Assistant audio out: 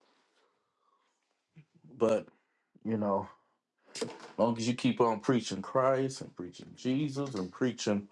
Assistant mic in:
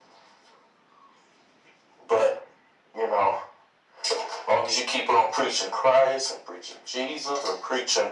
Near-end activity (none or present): none